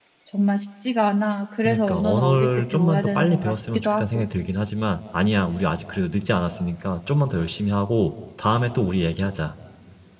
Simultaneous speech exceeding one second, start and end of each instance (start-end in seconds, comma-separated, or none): 1.6-4.2